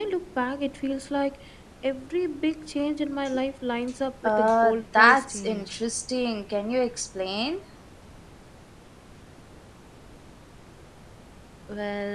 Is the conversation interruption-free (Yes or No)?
No